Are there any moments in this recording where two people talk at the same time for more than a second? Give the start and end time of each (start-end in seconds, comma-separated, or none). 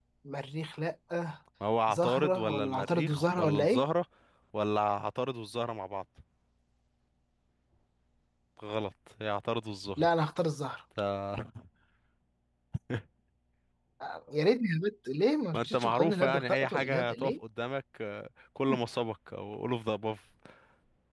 1.9-3.8, 15.5-17.3